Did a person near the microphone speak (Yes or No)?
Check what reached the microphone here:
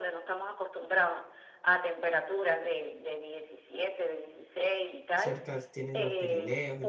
Yes